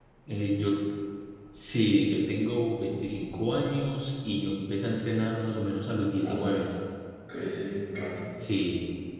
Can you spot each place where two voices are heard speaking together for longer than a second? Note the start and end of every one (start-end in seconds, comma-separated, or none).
none